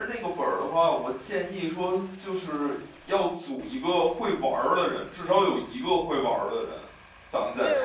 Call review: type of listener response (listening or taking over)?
taking over